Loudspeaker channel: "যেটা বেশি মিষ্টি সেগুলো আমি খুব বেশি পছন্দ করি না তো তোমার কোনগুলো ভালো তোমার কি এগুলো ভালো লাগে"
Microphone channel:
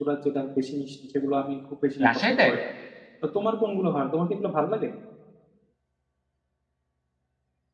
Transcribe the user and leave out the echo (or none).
রাজশাহীতে